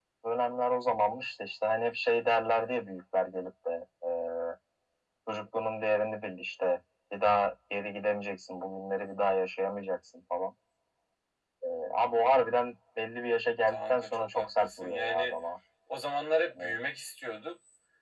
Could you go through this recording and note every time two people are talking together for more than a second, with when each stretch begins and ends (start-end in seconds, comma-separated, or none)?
13.7-15.3